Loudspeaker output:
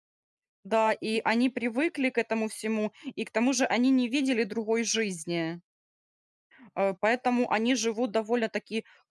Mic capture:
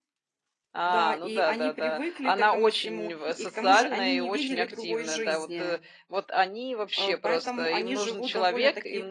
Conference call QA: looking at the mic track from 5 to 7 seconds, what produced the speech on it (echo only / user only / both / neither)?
both